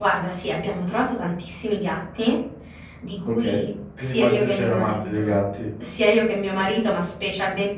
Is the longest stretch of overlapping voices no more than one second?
No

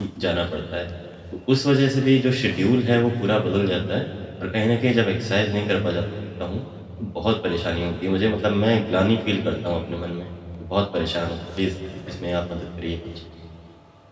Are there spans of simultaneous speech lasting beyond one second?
No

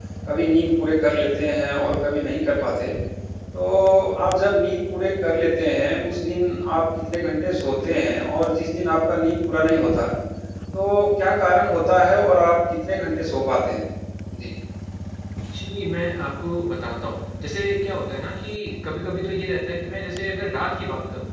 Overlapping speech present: No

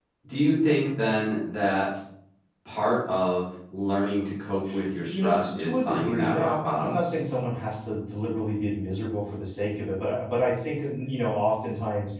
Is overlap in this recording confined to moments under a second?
No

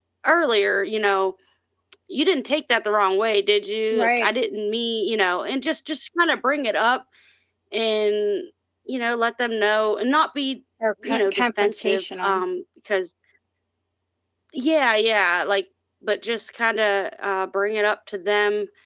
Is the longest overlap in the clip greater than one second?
Yes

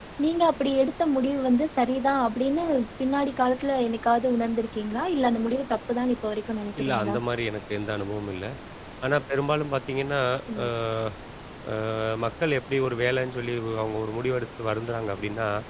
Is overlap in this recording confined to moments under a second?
Yes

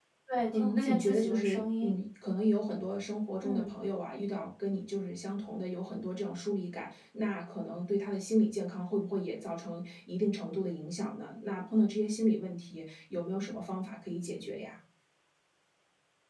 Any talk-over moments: Yes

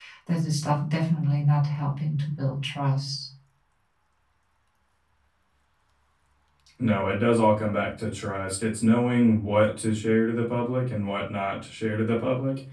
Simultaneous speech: No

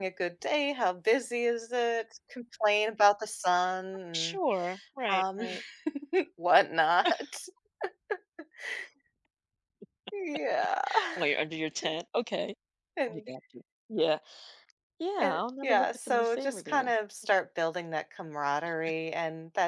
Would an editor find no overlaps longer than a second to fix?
No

